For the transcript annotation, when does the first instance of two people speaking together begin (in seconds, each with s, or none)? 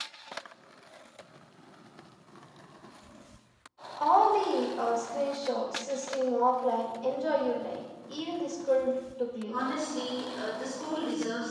none